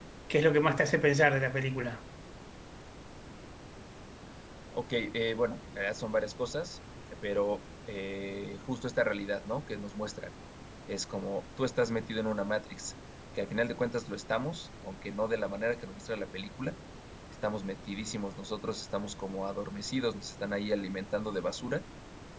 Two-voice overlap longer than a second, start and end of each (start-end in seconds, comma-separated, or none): none